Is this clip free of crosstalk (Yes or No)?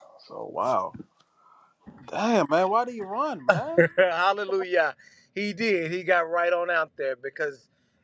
Yes